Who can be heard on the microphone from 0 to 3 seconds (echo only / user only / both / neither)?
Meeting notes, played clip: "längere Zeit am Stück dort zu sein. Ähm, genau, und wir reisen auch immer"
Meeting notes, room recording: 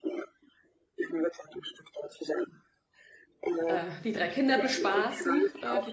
echo only